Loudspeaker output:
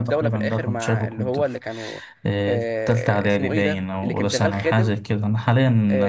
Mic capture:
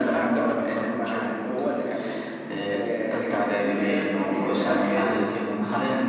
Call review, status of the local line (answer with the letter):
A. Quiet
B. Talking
A